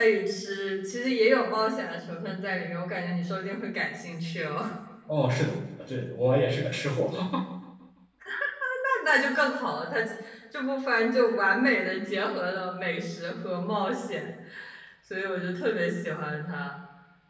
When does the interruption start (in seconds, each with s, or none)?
none